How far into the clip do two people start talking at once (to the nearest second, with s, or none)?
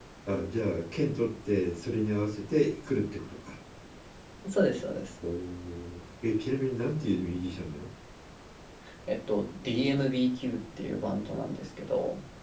none